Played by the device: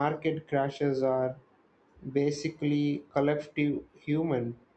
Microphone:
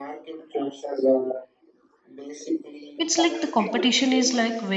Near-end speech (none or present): present